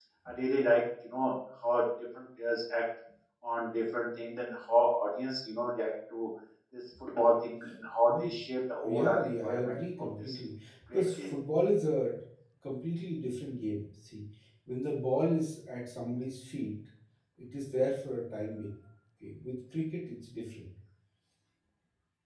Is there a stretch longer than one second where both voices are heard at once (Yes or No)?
Yes